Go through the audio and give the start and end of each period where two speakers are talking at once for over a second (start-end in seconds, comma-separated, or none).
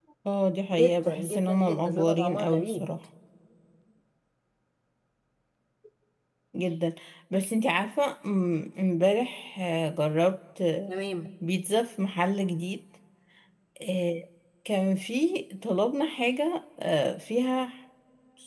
0.7-2.9